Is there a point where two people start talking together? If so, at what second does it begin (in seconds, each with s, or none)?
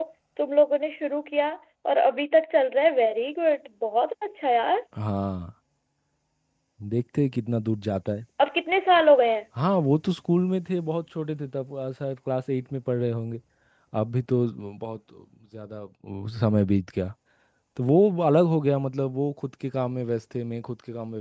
none